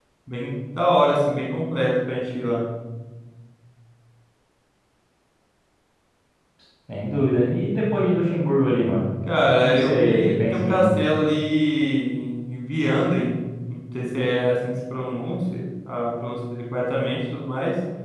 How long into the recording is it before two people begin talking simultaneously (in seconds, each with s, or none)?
9.6 s